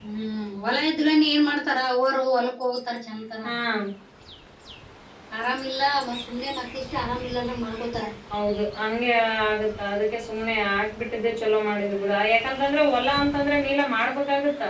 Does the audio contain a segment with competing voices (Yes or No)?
No